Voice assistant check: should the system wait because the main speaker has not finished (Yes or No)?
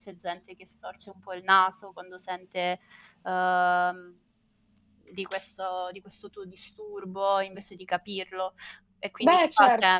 Yes